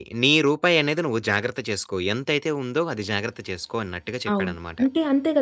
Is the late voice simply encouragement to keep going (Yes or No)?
No